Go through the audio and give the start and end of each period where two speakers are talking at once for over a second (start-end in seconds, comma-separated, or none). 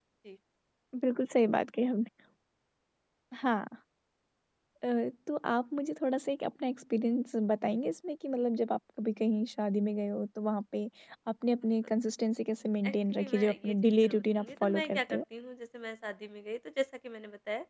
12.9-15.2